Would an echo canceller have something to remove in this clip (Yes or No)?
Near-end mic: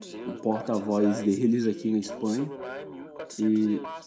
Yes